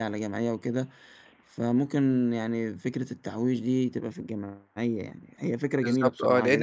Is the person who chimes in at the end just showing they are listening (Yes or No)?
No